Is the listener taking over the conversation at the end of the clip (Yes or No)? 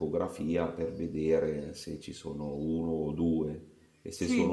No